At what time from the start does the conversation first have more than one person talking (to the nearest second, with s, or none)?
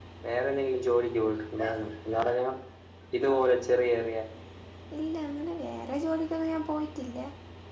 none